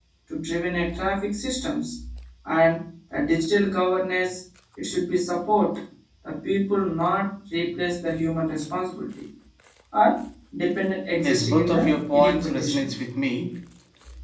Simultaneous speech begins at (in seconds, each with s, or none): 11.2 s